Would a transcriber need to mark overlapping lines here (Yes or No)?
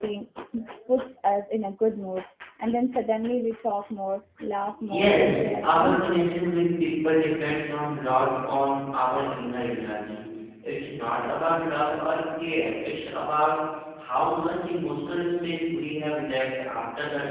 Yes